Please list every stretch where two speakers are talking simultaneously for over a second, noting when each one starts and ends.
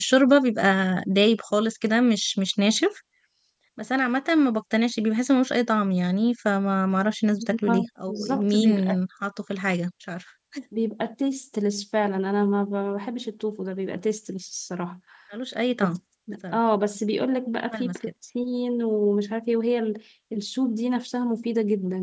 7.7-9.0

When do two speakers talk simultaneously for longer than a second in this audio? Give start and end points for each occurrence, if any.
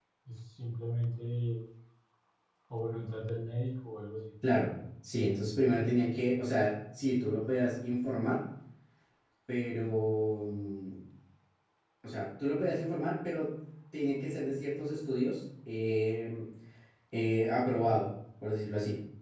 none

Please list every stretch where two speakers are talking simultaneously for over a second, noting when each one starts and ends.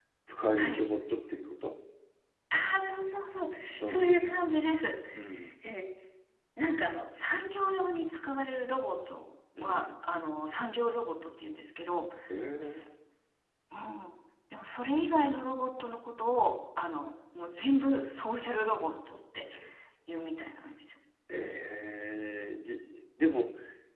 none

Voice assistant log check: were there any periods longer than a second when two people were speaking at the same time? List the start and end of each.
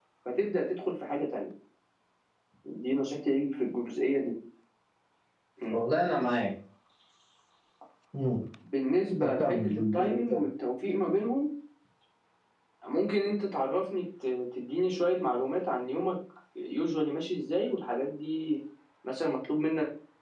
9.2-10.4

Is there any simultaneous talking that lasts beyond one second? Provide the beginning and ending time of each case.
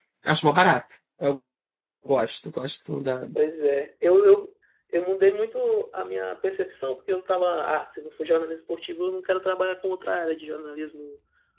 none

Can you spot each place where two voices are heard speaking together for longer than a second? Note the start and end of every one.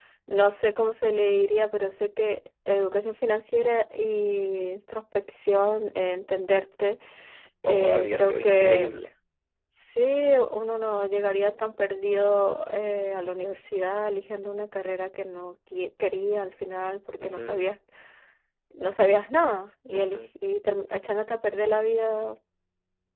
7.7-9.0

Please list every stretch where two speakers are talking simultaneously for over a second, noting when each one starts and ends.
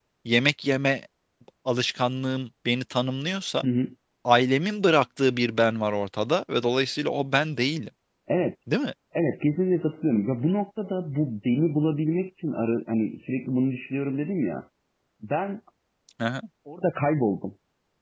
none

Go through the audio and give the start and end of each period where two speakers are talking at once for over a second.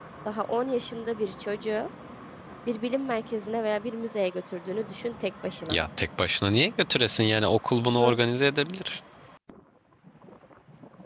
none

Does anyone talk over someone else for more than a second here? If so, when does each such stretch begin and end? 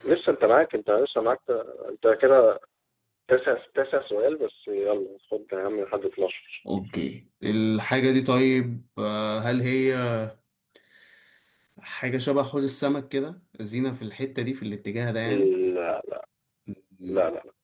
none

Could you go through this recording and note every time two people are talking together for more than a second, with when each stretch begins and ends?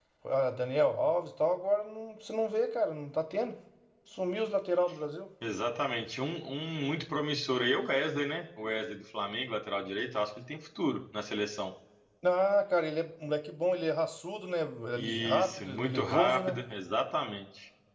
14.9-16.6

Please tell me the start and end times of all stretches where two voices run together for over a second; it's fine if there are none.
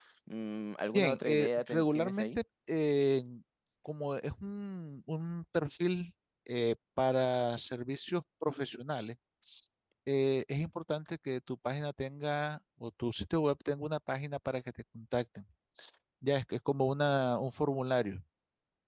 0.9-2.3

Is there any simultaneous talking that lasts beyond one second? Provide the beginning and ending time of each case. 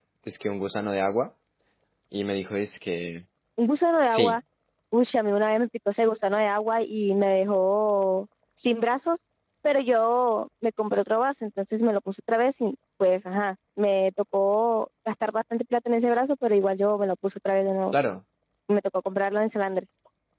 none

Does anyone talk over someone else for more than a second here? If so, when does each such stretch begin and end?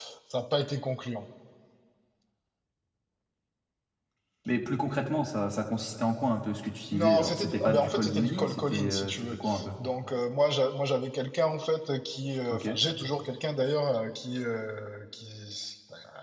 6.9-9.4

